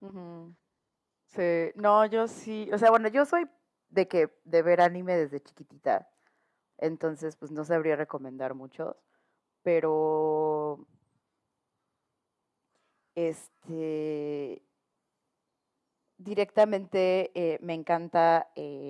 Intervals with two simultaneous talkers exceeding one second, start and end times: none

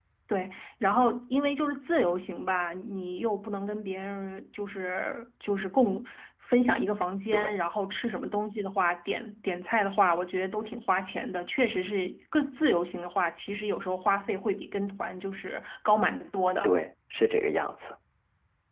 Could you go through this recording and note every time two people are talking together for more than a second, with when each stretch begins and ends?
none

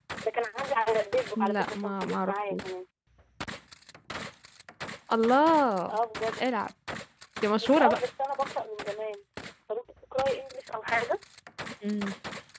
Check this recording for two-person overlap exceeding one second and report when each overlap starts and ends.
1.4-2.6

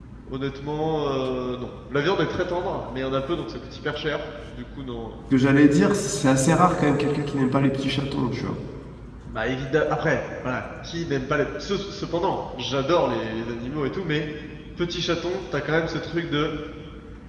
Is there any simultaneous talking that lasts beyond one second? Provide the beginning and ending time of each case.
none

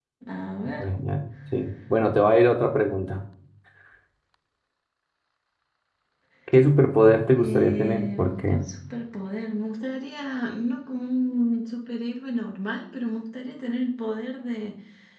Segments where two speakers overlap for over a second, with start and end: 7.3-8.6

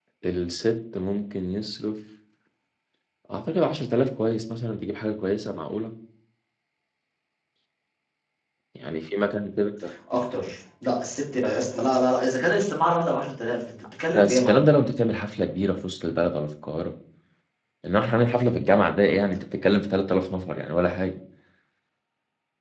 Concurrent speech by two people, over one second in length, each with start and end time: none

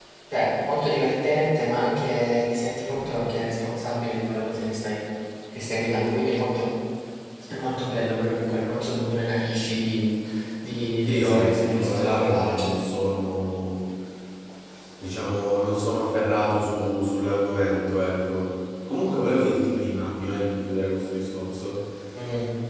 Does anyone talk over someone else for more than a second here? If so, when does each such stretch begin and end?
11.1-12.7

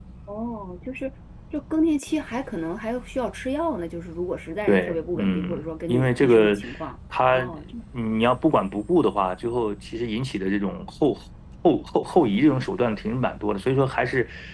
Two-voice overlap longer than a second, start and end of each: 4.7-6.6

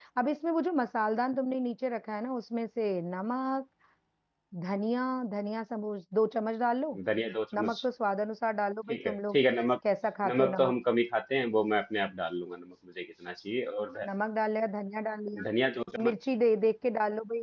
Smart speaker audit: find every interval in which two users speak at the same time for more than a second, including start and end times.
none

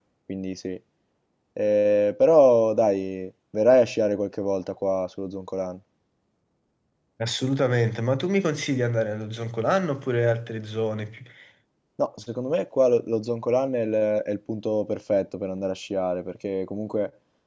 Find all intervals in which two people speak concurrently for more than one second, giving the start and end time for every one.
none

